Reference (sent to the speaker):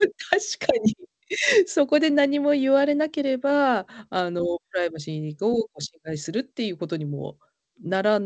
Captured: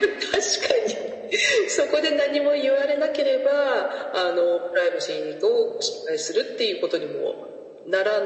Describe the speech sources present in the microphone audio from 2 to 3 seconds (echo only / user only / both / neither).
echo only